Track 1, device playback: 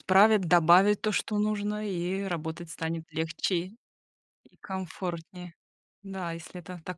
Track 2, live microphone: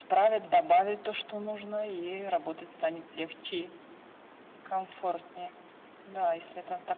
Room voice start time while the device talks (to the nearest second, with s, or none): none